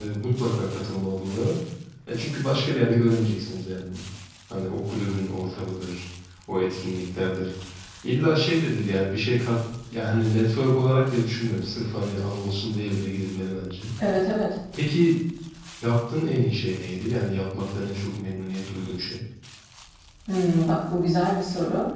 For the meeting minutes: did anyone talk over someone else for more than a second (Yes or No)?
No